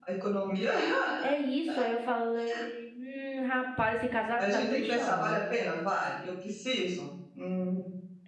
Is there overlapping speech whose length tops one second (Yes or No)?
Yes